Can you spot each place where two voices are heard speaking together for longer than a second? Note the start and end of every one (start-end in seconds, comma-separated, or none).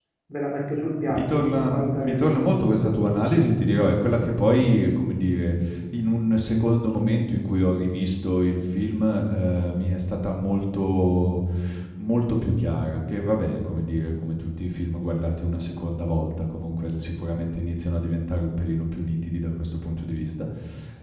1.1-2.4